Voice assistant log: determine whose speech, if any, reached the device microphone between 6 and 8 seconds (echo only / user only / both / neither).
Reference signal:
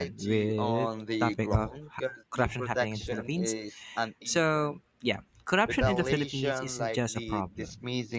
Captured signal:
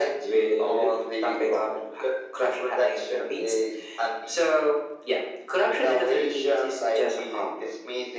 echo only